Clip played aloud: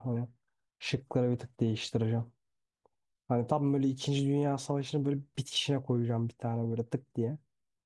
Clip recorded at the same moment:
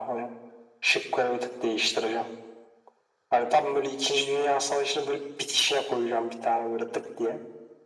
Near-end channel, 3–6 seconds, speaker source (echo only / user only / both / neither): echo only